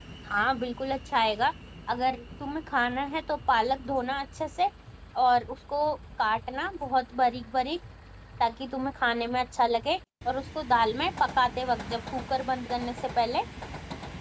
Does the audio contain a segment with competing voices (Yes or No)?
No